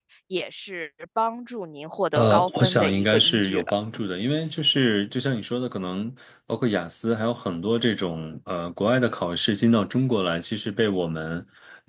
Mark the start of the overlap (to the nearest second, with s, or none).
2 s